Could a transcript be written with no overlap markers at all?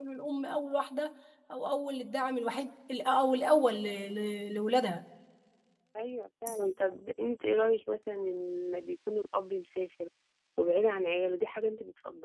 Yes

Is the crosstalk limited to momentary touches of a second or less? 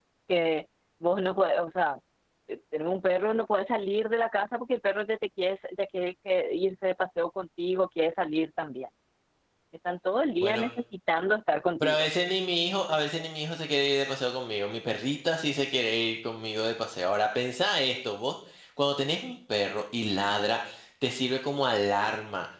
Yes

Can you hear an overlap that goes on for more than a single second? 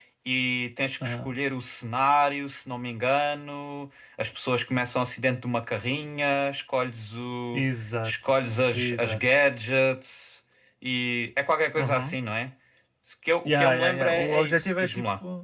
Yes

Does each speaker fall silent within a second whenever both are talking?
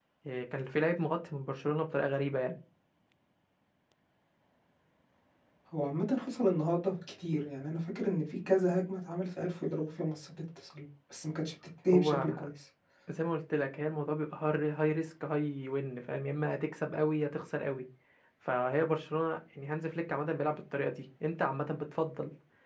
Yes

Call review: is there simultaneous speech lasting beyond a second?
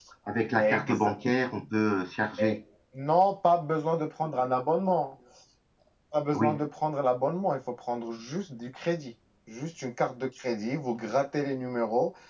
No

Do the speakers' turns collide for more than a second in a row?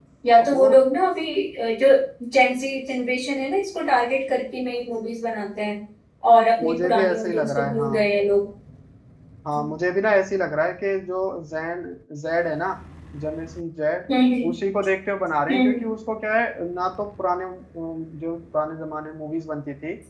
Yes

